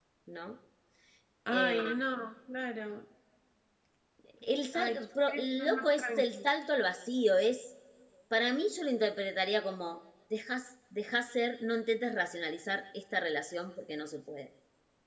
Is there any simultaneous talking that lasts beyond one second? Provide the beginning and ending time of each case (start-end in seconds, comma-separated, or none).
4.7-6.4